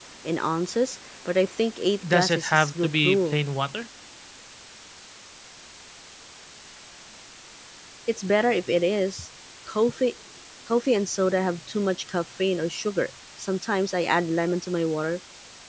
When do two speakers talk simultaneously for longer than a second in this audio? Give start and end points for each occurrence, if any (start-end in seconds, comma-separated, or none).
2.1-3.4